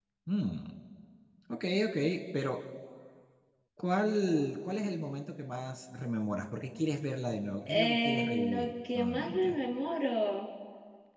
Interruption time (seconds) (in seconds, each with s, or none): 7.7 s